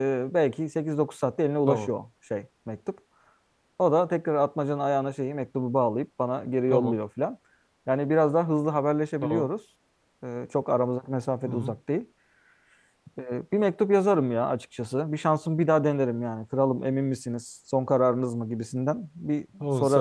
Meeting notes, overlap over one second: none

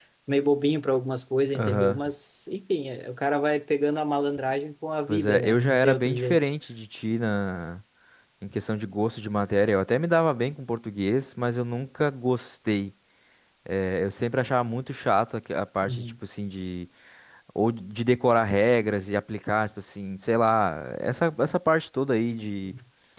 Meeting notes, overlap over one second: present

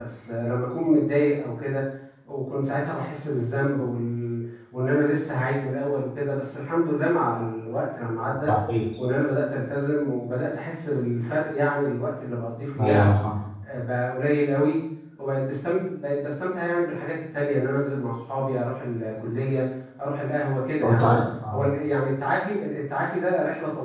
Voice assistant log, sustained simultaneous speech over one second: none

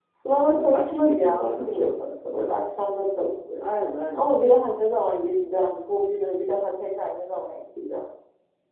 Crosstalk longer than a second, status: present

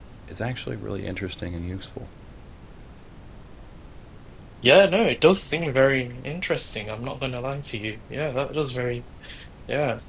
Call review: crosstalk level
none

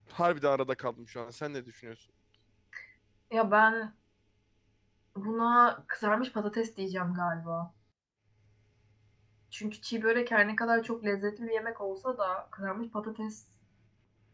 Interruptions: none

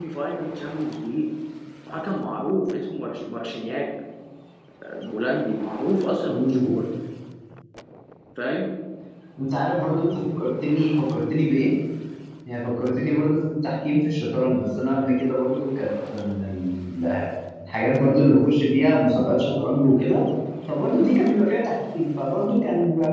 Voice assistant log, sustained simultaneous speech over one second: none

